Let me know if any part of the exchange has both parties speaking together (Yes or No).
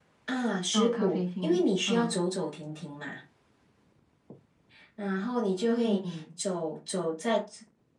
Yes